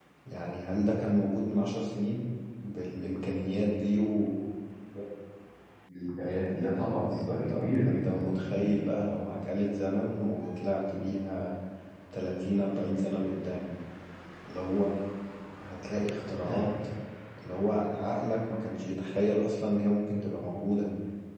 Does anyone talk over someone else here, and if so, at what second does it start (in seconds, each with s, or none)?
7.1 s